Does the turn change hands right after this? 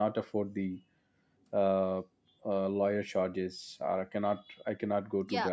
Yes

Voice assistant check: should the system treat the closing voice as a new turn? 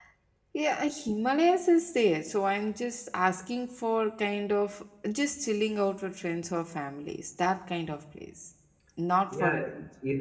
Yes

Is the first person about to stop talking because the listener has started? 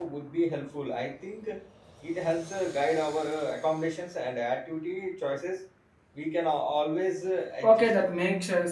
Yes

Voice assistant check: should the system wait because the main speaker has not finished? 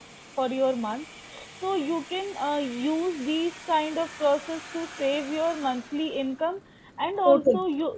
Yes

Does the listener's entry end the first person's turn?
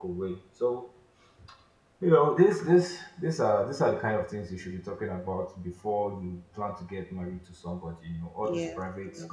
No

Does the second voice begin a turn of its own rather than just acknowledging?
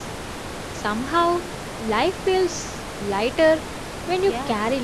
Yes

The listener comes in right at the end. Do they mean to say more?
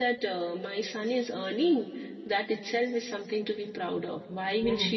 No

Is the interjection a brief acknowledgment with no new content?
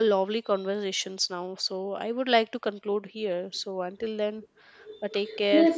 No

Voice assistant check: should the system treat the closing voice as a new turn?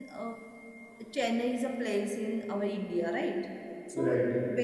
No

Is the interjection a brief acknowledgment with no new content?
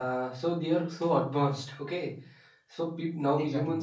Yes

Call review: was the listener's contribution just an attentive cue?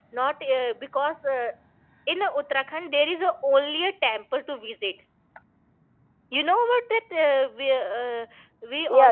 Yes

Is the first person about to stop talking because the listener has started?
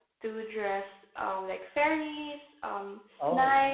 No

